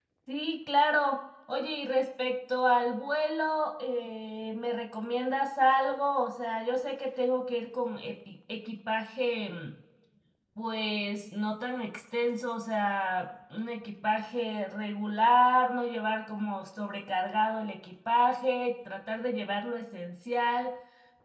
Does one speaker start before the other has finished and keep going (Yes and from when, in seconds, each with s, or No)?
No